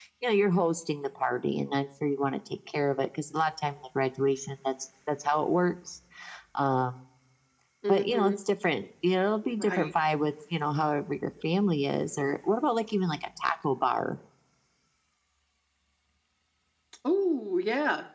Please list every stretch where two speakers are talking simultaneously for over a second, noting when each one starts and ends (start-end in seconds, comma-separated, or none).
none